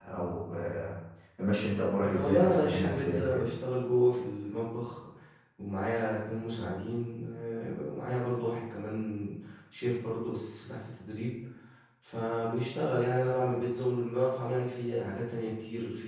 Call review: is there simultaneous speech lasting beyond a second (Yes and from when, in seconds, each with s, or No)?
Yes, from 2.0 s